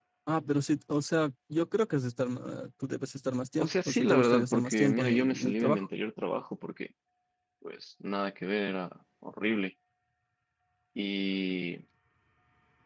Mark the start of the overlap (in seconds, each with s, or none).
3.6 s